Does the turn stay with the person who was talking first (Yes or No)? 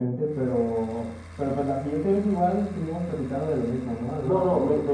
No